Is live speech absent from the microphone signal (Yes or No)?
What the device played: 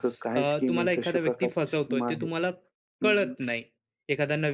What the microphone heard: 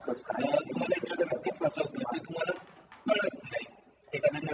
Yes